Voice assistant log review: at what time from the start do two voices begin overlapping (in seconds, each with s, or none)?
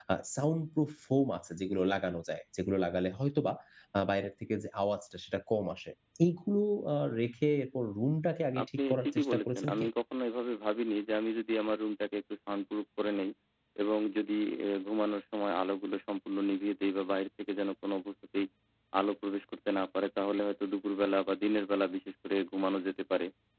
8.6 s